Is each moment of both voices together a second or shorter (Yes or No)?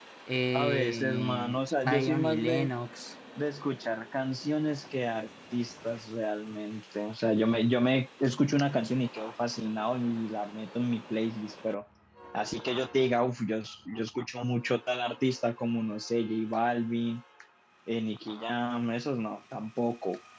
No